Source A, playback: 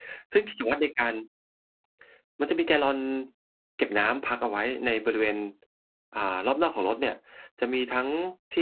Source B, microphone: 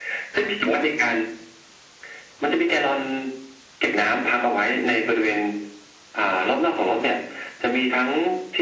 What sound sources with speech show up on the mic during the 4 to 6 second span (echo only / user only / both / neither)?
echo only